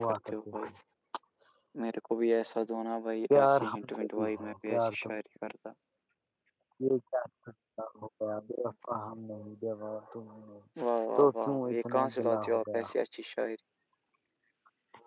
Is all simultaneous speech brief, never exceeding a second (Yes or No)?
No